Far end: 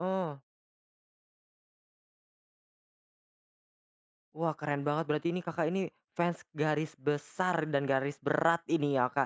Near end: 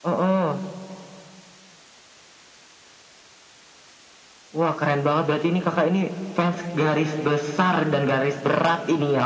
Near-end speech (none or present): none